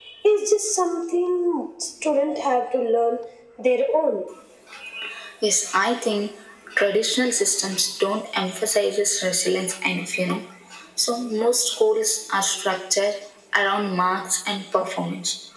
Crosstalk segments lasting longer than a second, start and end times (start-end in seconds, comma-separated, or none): none